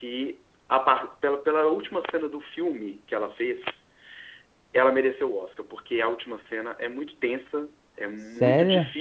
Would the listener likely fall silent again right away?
Yes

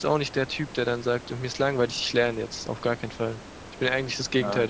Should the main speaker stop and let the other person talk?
Yes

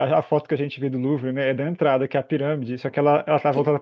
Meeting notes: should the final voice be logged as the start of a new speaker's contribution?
No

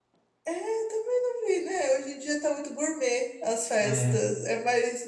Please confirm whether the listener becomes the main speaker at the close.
No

